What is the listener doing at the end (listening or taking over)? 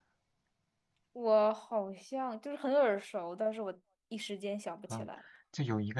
taking over